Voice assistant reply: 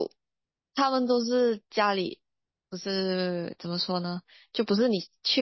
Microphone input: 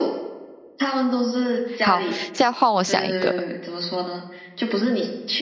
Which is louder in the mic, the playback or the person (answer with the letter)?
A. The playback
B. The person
B